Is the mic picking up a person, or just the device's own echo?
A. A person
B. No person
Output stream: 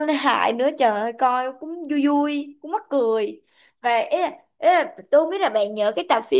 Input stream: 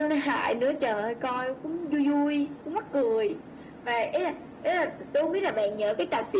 B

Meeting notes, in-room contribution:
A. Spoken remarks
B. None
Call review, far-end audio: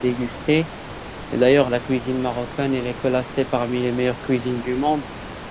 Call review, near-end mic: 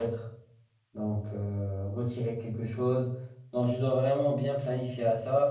A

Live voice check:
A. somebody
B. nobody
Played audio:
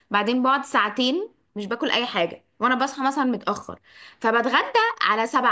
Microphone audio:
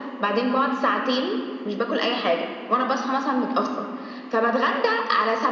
B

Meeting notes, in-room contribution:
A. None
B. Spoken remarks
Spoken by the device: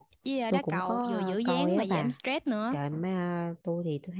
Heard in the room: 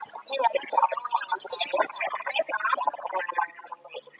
A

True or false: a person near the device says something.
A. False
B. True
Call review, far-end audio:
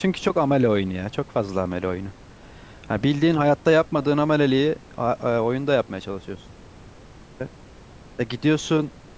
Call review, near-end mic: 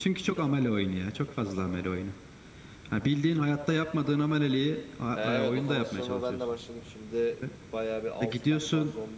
B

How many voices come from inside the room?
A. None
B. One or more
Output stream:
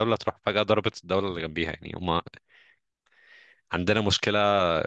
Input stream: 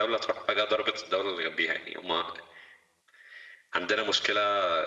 A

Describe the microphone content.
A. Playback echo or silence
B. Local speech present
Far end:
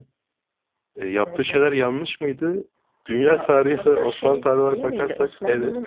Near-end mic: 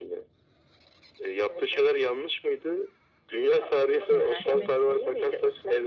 B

